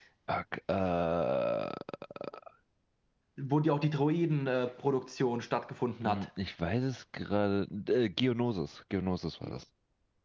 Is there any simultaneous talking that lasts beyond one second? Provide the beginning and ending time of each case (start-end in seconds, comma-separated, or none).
none